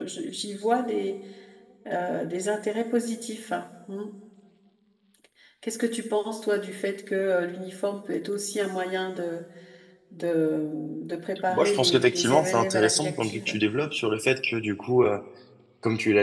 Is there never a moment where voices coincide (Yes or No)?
No